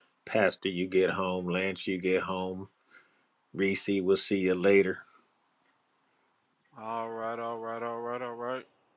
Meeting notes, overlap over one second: none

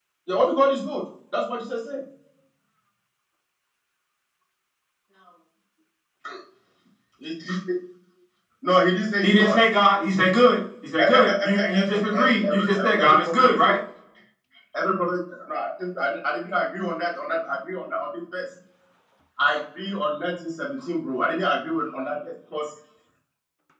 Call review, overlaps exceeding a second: present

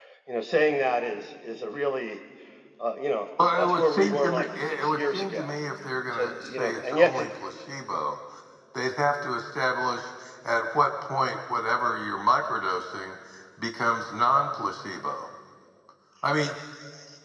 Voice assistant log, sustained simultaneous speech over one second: present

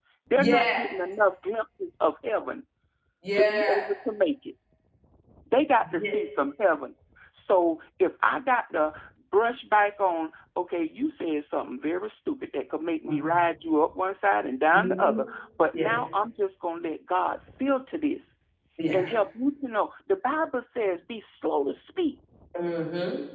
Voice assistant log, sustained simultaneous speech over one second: none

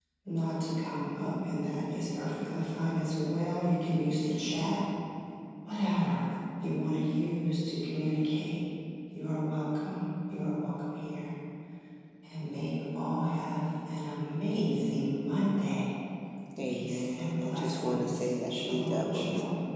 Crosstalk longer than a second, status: present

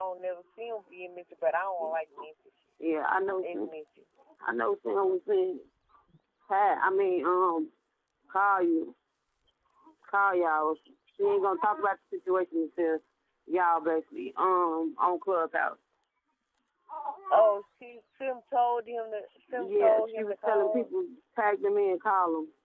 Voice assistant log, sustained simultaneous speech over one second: present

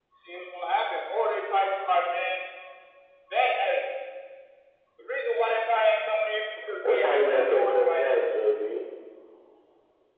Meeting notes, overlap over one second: present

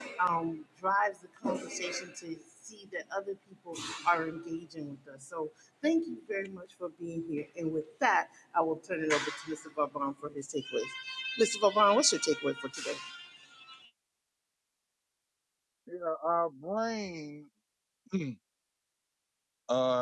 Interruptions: none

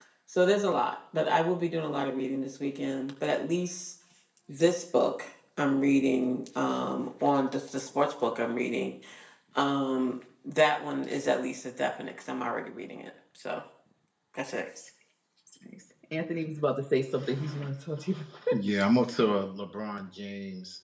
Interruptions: none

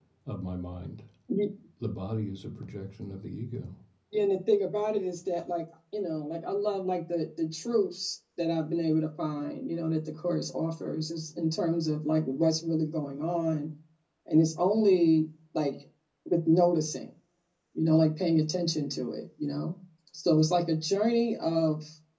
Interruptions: none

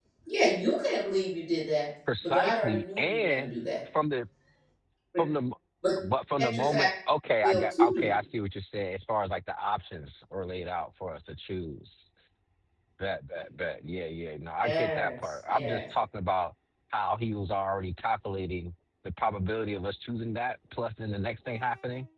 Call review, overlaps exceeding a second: present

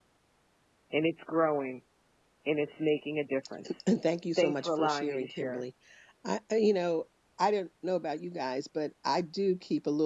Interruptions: present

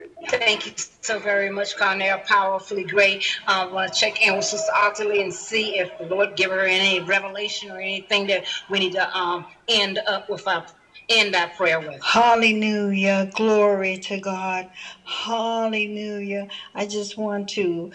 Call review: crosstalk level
none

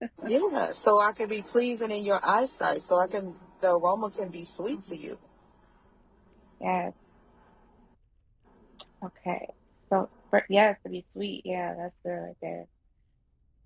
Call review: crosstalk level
none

